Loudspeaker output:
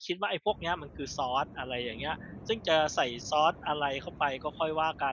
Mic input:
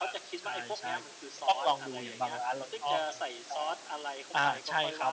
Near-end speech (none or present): present